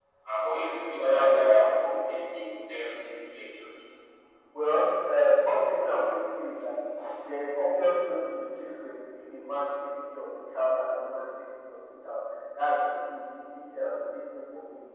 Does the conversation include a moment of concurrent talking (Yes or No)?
No